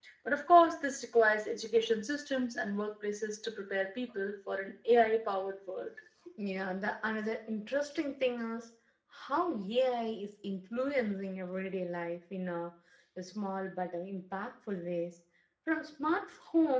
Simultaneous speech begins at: none

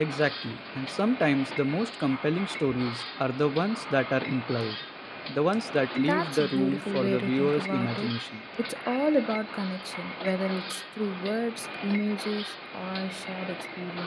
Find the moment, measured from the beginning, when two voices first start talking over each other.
6 s

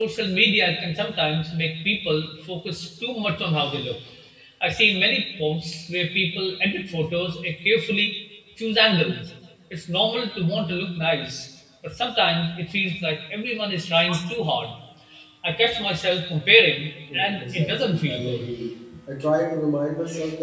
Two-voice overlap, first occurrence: 17 s

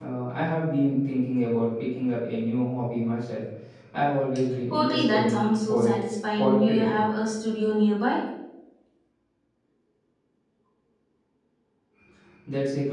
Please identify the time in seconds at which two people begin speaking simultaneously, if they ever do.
5 s

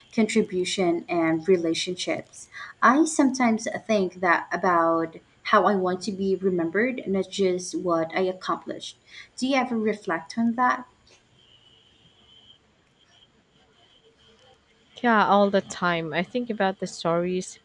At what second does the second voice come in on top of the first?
none

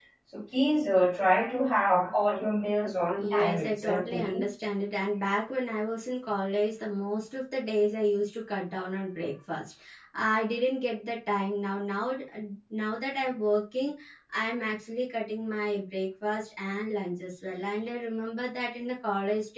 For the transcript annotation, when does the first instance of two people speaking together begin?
3 s

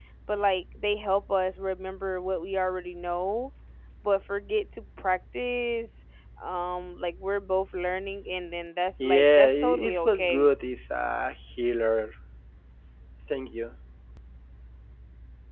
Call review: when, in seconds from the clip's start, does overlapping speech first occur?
9 s

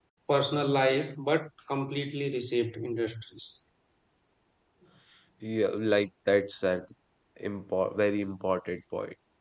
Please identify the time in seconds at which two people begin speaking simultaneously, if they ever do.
none

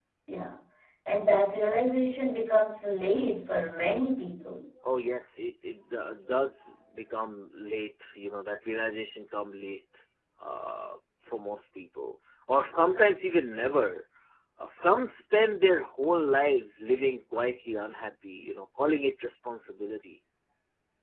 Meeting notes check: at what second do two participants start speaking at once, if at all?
none

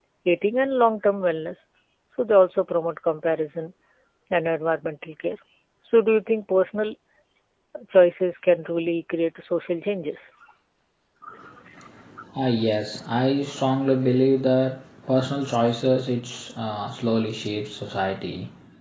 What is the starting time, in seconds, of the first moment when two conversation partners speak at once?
none

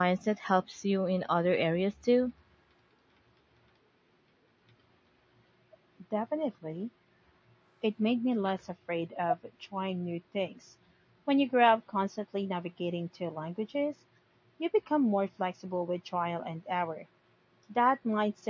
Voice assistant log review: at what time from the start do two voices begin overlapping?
none

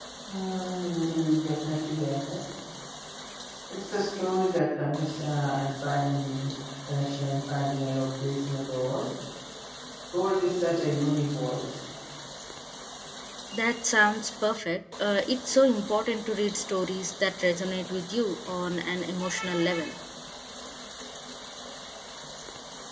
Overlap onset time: none

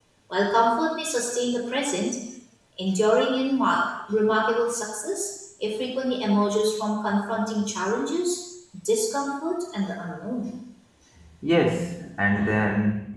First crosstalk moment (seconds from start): none

